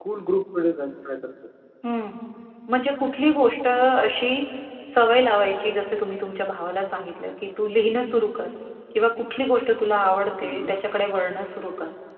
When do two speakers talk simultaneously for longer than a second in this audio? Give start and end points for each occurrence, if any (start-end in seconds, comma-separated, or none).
none